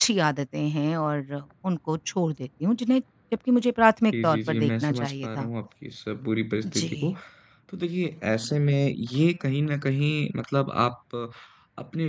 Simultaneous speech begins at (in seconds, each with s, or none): 4.1 s